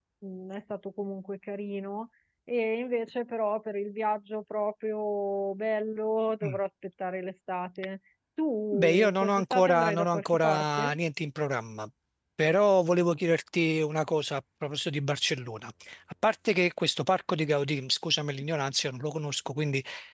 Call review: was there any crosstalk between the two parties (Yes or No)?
Yes